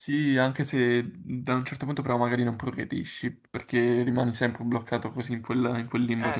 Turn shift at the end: Yes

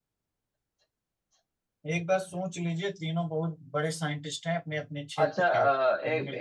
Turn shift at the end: Yes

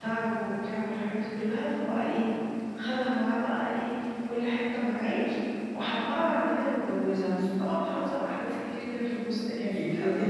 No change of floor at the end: No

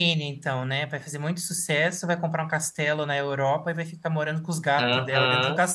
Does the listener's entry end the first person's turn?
Yes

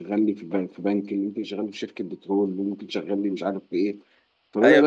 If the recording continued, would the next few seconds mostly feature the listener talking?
Yes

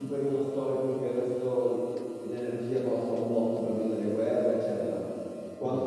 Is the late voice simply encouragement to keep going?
Yes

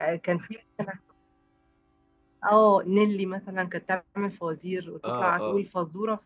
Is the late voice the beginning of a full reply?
No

